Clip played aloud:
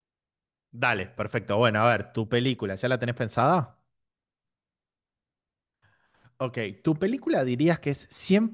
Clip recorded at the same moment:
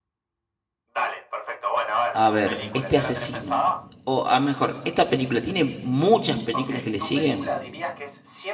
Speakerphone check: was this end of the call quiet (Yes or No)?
No